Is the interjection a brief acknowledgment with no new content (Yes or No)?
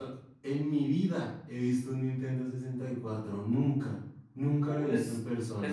No